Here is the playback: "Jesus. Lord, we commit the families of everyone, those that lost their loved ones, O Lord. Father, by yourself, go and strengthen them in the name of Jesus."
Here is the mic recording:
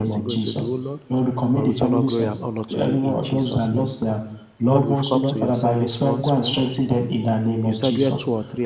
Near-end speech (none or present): present